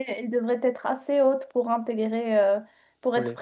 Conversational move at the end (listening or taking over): listening